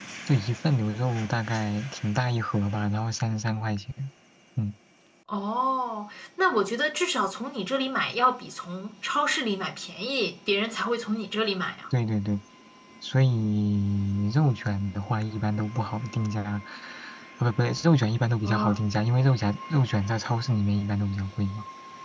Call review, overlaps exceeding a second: none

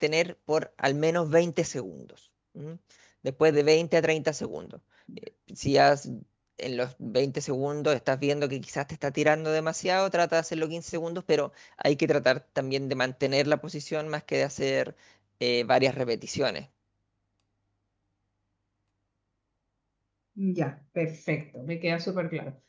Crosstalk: none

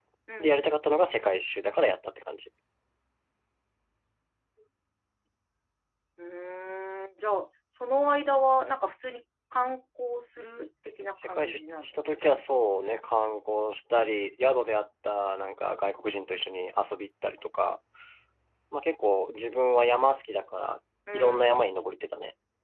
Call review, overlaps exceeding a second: present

